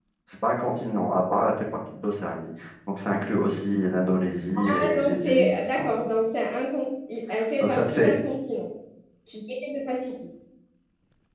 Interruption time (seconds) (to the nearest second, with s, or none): 5 s